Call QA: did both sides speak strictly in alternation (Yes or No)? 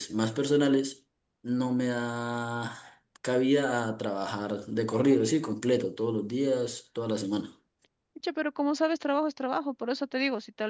Yes